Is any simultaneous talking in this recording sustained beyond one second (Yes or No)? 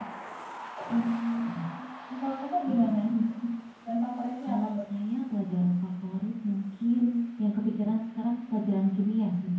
No